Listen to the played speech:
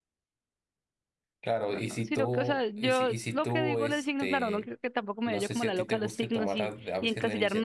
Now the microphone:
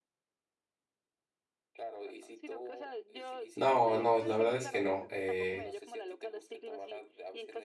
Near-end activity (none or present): present